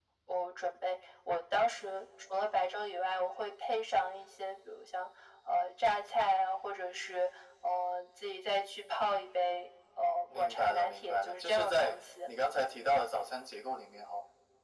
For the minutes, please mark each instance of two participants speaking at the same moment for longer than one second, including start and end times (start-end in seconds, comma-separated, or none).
10.3-12.0